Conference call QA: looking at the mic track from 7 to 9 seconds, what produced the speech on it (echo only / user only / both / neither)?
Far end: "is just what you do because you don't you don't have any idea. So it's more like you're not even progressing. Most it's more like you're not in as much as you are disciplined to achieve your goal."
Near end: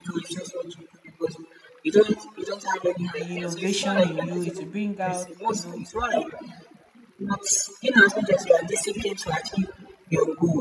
echo only